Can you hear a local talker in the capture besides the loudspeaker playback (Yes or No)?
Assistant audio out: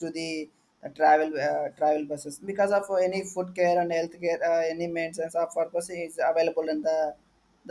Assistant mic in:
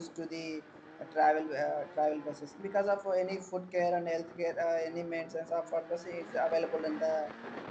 No